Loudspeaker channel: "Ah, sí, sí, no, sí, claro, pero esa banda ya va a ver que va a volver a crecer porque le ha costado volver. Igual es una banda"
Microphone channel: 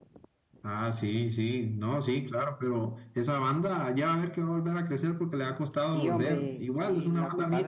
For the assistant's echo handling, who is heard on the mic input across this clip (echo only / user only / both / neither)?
both